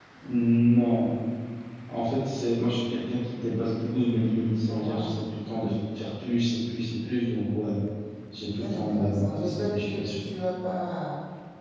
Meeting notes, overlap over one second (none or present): present